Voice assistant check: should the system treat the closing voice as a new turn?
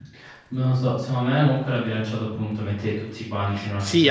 Yes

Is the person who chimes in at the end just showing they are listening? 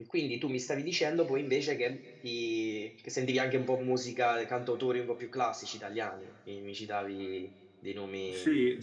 No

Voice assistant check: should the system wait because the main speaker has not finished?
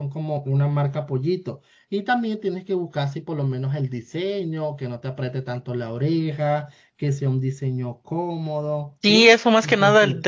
No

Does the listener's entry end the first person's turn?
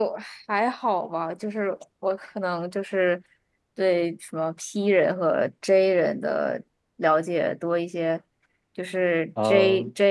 No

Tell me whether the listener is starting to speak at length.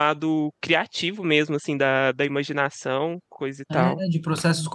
Yes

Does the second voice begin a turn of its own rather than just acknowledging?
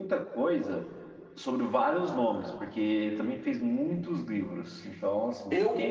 Yes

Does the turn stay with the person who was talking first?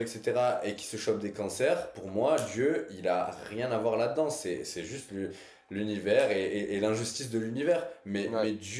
Yes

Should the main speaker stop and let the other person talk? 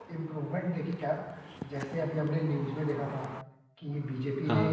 No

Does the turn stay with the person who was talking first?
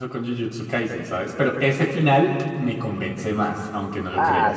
No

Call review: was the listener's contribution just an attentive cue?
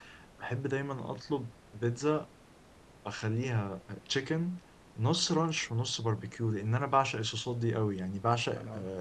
Yes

